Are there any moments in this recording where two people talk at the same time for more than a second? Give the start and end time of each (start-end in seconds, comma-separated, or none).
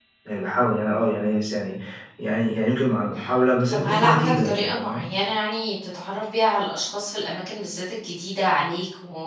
3.7-5.0